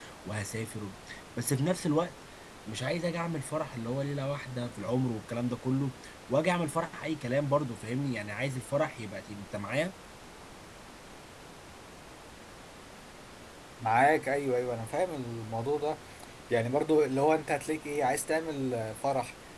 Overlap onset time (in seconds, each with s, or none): none